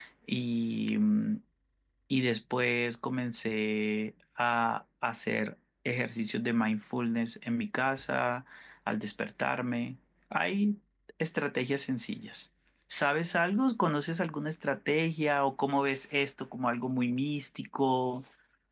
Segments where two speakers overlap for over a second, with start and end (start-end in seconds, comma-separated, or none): none